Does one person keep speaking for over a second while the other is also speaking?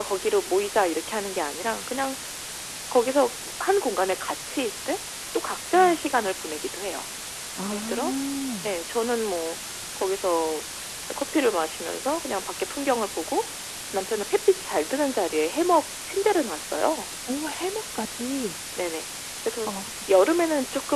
No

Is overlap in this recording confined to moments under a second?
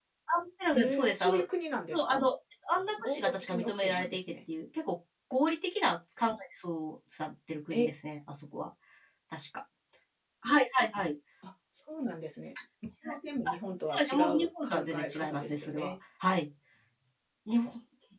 No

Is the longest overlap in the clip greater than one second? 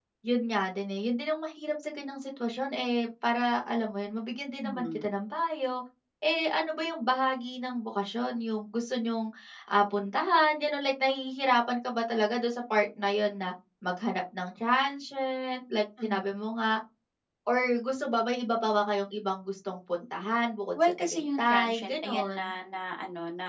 Yes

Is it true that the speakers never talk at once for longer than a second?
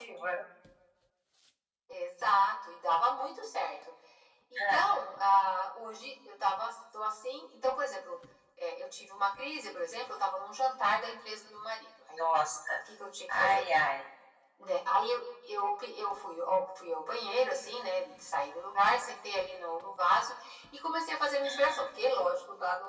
Yes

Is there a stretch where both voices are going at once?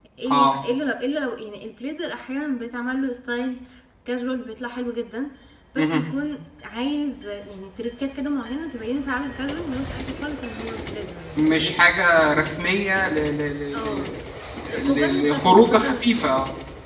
Yes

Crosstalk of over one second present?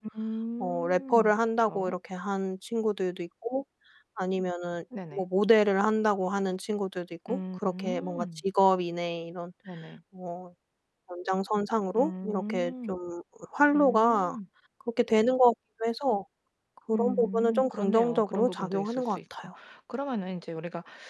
Yes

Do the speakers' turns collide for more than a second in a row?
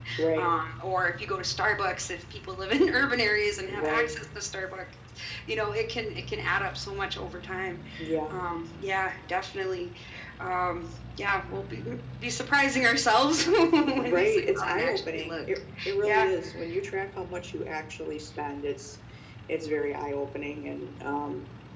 Yes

